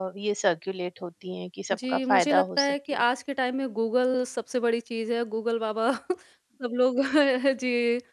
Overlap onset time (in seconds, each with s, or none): 1.7 s